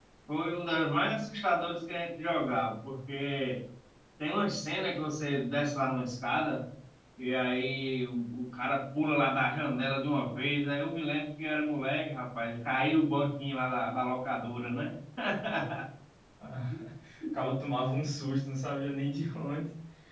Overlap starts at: none

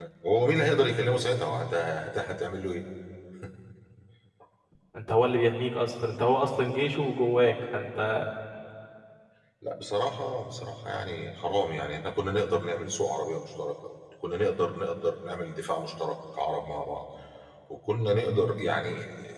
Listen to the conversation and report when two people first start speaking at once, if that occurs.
none

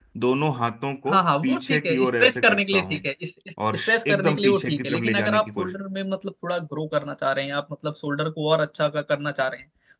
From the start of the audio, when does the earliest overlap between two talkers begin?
1.1 s

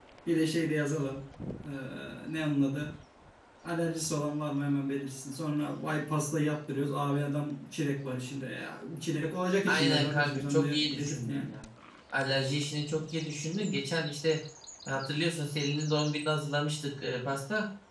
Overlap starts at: 9.7 s

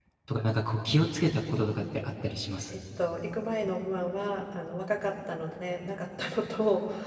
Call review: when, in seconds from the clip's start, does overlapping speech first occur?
none

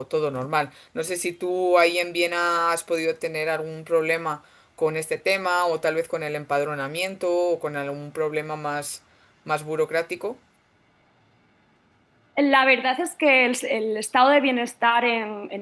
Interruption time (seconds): none

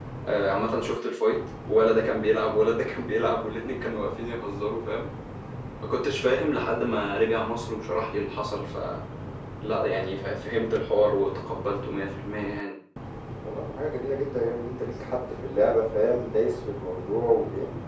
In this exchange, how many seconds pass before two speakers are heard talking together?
none

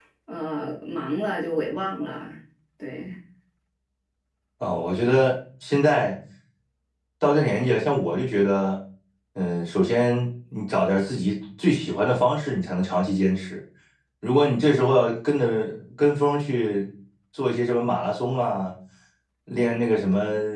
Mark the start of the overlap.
none

